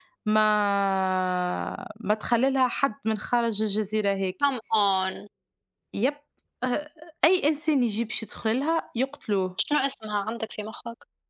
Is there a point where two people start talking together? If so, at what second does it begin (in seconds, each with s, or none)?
none